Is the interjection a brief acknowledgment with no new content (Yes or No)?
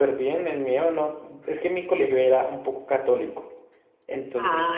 Yes